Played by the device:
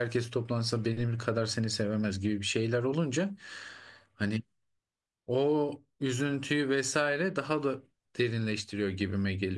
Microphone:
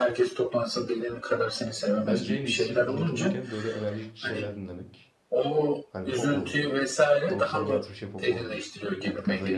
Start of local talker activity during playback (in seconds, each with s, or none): 2.0 s